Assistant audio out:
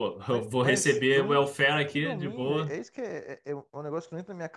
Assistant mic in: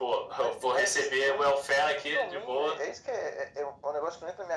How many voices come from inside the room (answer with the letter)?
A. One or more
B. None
B